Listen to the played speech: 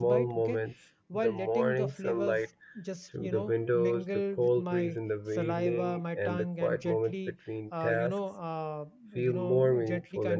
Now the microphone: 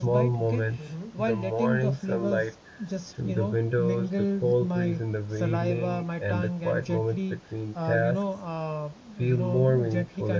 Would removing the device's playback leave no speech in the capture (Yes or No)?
No